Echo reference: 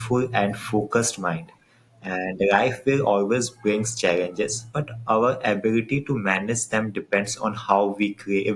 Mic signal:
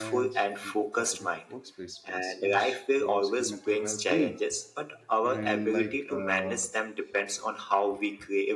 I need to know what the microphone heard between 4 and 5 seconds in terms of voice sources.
both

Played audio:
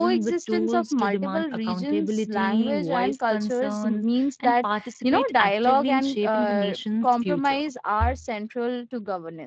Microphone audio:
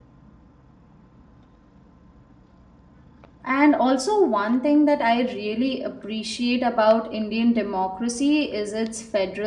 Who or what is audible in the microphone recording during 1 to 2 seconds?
neither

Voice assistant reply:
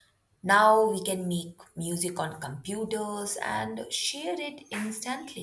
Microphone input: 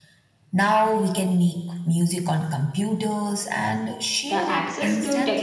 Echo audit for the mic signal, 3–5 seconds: both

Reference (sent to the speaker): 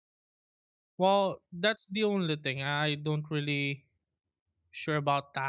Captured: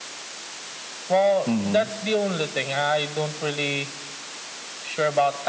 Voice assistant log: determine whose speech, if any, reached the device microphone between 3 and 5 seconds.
echo only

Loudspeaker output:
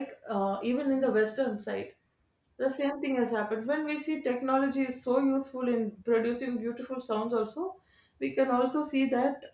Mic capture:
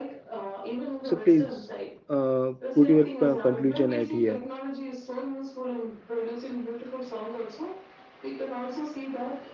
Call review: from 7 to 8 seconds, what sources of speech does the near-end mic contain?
echo only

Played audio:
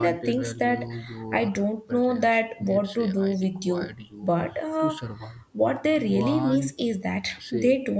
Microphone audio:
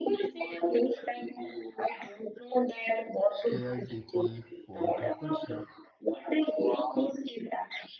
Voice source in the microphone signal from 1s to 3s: echo only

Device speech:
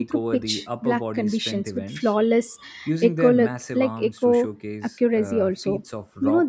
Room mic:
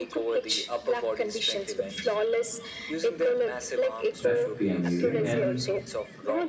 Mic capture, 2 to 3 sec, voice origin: echo only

